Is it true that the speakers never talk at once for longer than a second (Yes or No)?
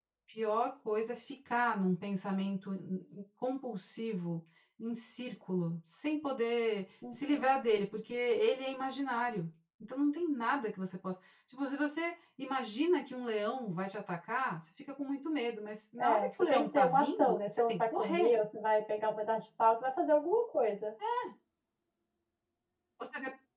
No